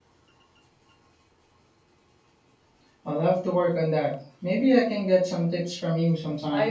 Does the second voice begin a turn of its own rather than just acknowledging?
Yes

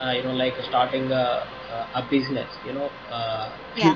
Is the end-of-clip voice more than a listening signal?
No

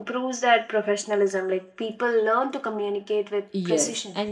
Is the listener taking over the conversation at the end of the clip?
Yes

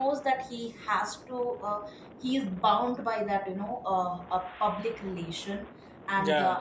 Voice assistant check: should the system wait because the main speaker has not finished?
Yes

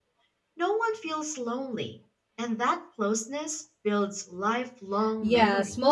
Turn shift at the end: Yes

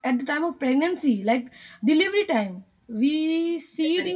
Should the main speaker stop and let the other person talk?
No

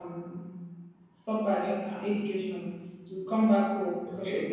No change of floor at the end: Yes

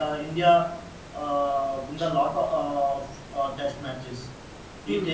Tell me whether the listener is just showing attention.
No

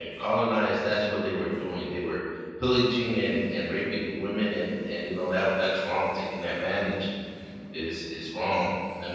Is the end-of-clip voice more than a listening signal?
No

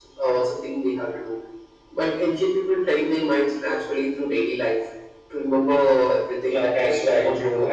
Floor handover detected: Yes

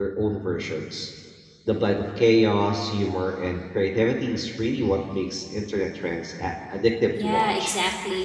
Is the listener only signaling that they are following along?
No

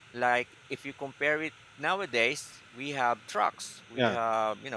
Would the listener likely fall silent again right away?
Yes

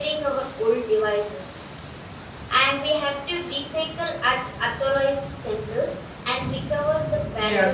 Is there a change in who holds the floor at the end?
Yes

